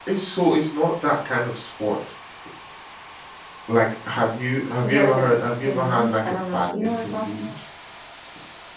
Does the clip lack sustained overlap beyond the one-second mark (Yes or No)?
No